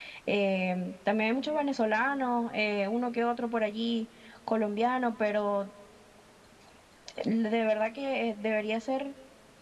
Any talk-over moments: No

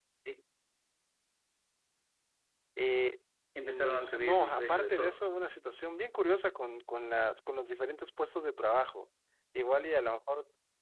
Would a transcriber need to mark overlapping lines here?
Yes, from 3.6 s

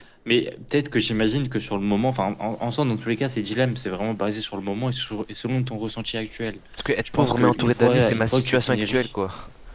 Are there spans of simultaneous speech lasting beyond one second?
Yes, from 7.2 s

